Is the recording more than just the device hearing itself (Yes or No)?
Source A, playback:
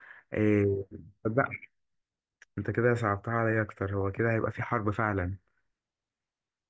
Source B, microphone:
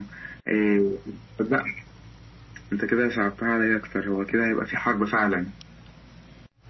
No